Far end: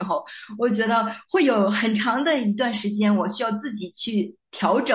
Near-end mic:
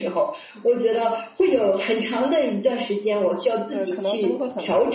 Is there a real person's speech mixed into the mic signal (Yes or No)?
Yes